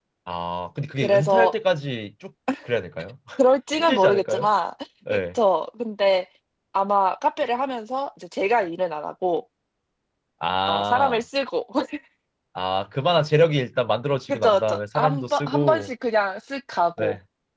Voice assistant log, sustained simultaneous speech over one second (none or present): present